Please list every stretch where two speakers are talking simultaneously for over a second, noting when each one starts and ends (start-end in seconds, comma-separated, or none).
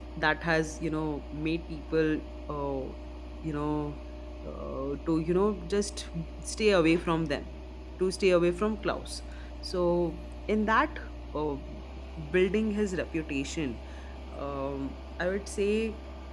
none